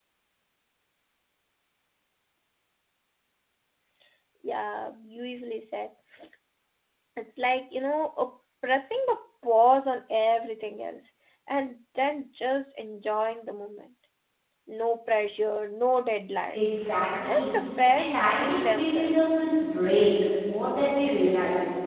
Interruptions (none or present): present